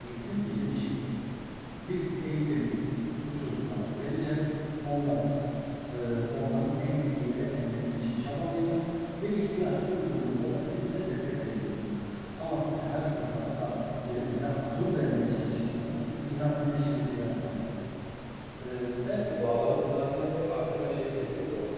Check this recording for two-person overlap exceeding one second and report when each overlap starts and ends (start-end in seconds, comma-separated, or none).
none